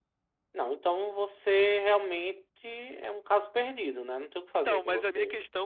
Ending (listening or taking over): taking over